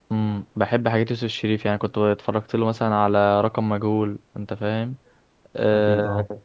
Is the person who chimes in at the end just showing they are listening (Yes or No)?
Yes